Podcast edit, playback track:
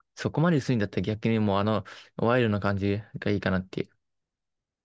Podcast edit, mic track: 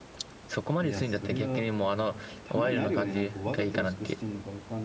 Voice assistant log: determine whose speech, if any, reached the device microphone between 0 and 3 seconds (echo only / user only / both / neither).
both